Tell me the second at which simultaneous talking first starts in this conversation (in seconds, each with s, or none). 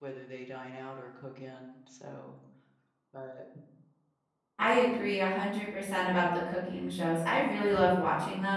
none